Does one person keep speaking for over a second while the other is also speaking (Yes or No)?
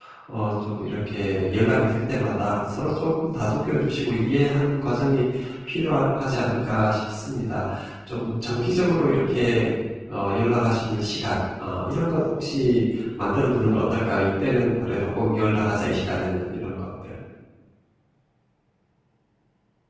No